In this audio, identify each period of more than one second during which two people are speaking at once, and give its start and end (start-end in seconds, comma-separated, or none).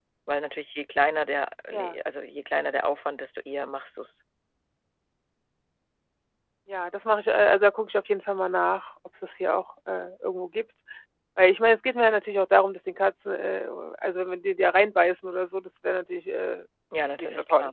none